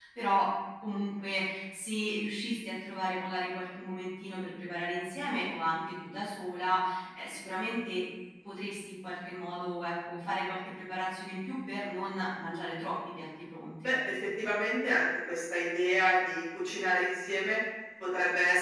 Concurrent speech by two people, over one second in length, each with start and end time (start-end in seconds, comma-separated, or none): none